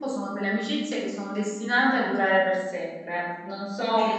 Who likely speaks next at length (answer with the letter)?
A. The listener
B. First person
B